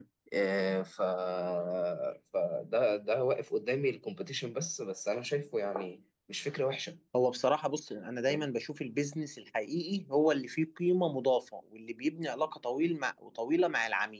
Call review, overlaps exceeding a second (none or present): none